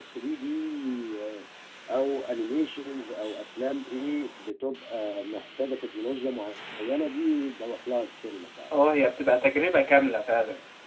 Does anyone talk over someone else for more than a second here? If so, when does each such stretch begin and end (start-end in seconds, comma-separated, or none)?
none